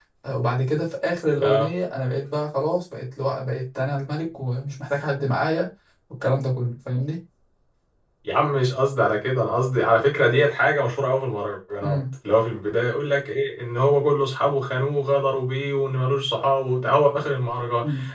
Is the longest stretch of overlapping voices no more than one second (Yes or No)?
Yes